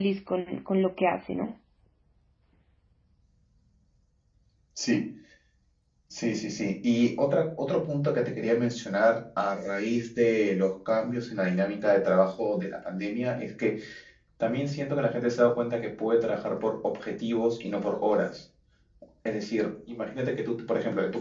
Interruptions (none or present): none